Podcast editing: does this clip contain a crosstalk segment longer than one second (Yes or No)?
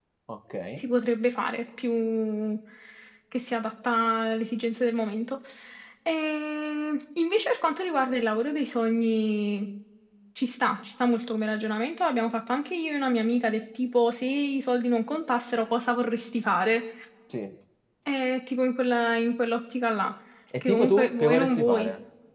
Yes